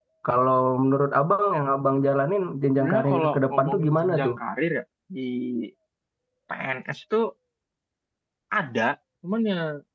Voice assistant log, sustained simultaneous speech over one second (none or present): present